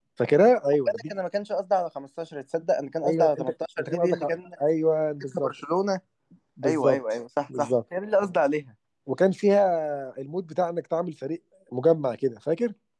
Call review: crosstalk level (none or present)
present